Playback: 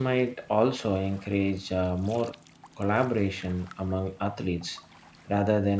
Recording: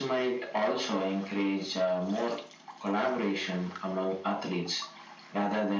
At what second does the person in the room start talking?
none

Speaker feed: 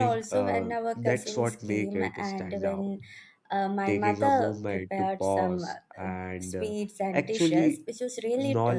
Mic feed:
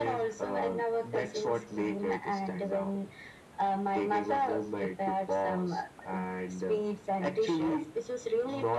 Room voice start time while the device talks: none

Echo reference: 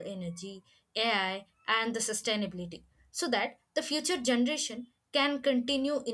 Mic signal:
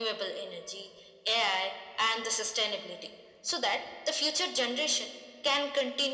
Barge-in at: none

